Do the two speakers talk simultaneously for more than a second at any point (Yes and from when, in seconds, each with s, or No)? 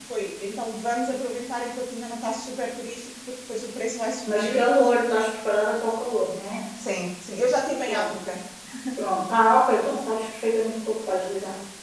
No